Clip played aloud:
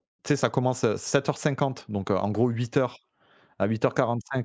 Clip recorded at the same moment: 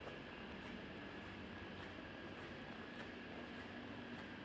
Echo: none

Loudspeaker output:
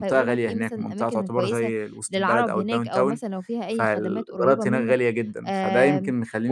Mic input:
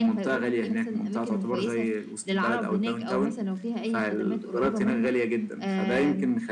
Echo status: present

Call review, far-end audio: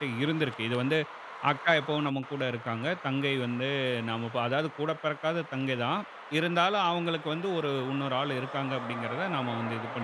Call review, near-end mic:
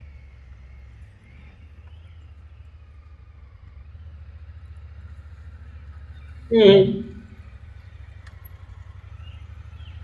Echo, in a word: none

